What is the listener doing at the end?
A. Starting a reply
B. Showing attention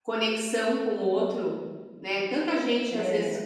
B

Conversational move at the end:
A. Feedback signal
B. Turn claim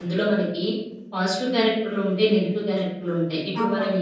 A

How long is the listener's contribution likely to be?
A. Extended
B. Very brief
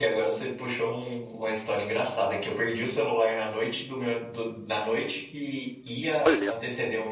B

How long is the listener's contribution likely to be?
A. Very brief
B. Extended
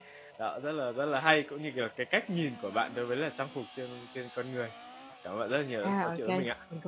B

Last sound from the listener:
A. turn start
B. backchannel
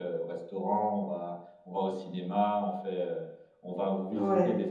B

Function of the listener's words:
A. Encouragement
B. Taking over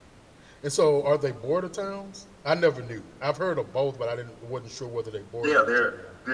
B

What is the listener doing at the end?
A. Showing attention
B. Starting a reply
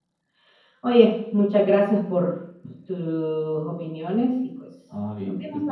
B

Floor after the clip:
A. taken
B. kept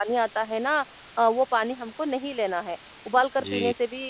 B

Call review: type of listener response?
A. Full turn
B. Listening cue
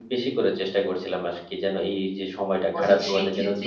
A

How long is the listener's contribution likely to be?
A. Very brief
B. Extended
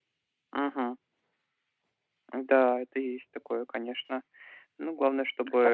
B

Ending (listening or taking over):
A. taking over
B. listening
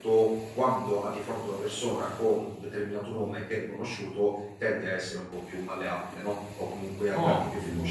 A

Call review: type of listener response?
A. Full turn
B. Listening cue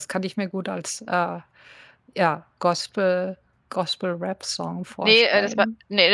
A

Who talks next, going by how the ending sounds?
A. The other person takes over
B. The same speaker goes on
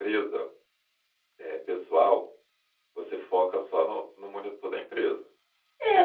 A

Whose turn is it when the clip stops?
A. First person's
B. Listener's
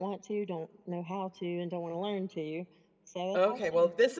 B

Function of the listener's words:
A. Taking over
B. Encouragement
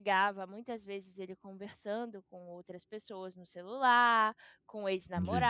B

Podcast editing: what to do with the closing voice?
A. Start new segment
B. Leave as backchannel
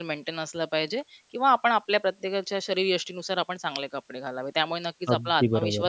B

